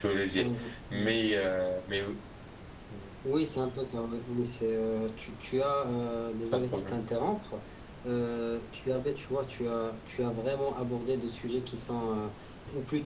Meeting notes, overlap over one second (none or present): none